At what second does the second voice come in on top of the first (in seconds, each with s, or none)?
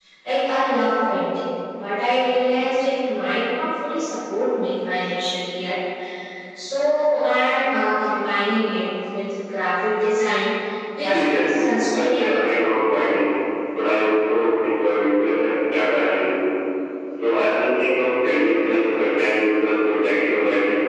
11.0 s